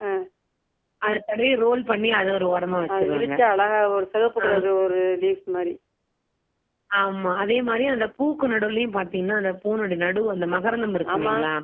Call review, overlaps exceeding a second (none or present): none